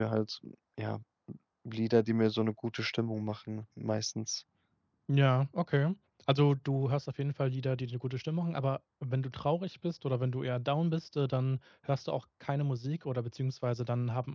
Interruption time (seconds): none

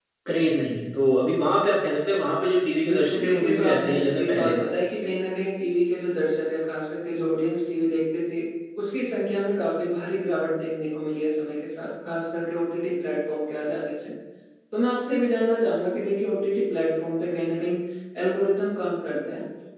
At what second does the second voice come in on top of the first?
2.8 s

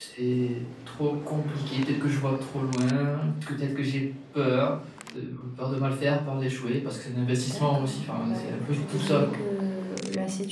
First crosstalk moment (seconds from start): 7.5 s

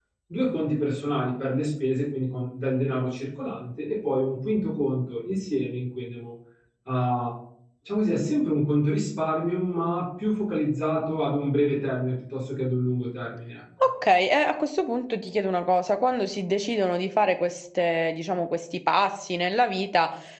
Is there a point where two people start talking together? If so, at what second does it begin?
none

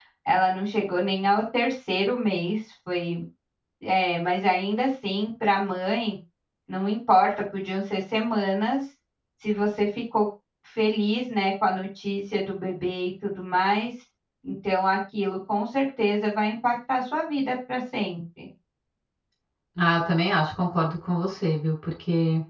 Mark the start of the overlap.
none

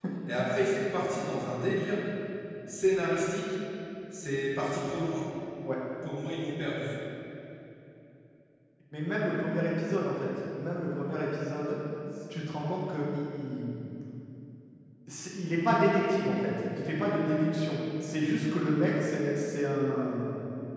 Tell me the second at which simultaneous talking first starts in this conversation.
none

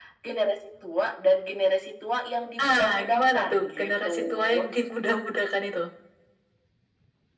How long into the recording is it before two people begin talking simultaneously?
2.6 s

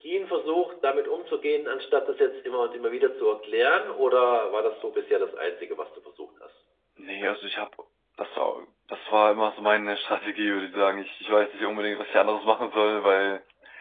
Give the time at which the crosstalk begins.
none

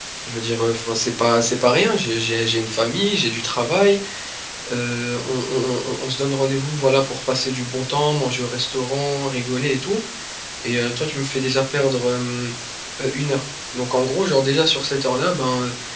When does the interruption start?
none

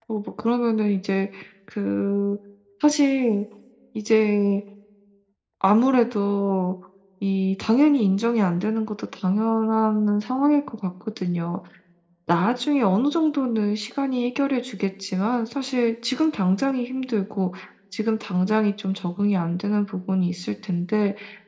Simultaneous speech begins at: none

